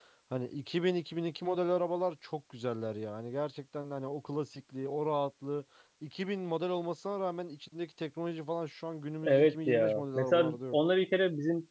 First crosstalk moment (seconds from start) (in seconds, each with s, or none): 9.2 s